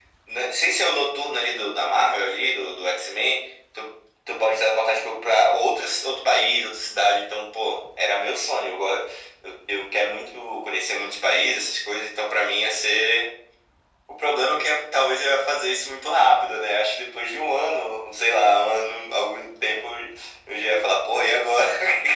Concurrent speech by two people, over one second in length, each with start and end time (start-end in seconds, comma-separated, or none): none